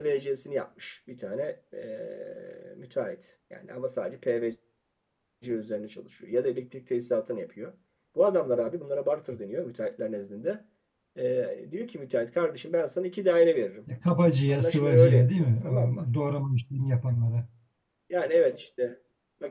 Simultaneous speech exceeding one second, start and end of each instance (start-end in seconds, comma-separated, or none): 14.5-16.1